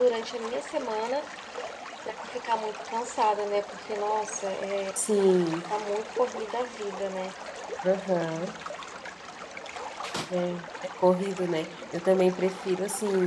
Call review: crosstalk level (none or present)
none